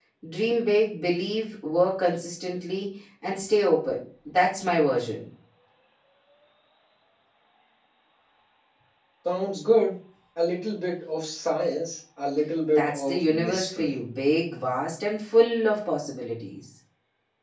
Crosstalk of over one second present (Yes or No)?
Yes